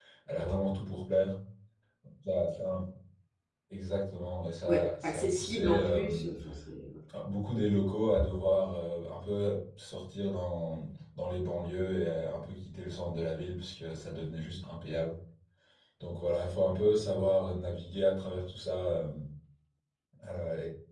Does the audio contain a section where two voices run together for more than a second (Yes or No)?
Yes